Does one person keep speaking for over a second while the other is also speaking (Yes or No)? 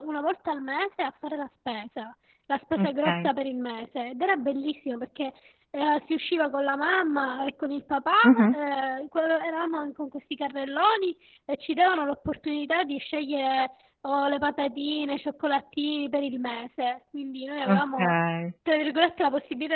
No